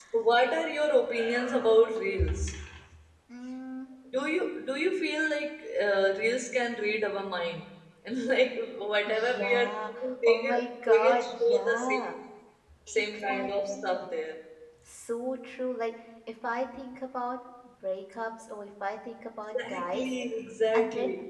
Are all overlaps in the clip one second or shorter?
No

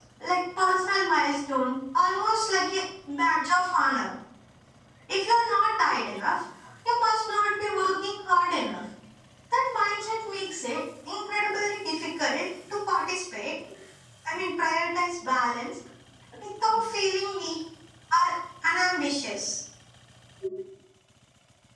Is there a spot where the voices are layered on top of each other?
No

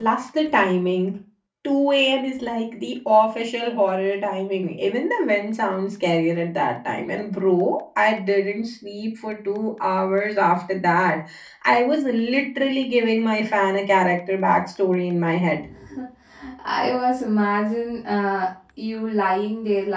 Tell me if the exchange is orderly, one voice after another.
Yes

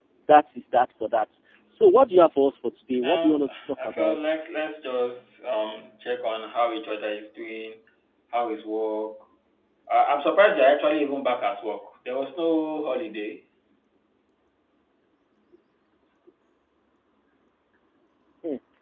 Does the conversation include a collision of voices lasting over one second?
Yes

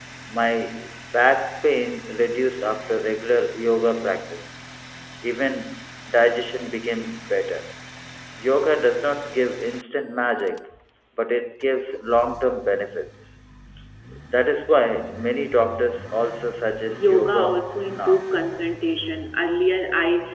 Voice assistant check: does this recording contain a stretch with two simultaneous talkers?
Yes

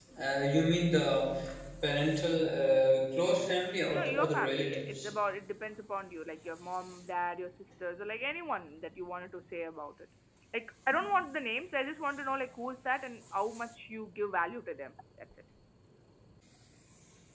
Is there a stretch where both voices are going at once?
Yes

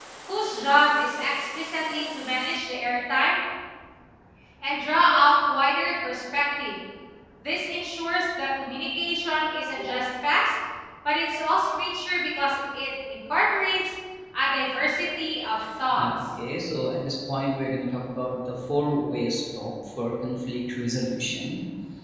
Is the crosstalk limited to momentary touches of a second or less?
Yes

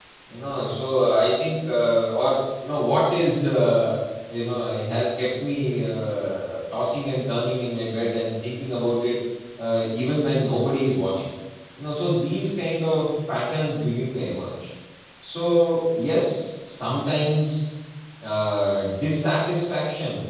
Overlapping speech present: No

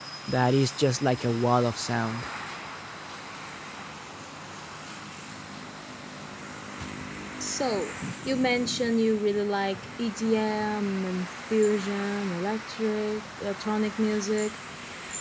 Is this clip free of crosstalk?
Yes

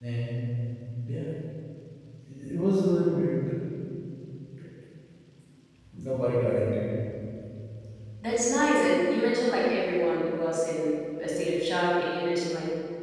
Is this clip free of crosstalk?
Yes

